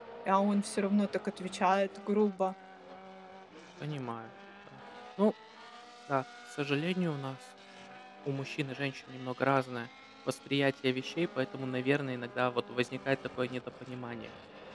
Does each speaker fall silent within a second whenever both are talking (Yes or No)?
Yes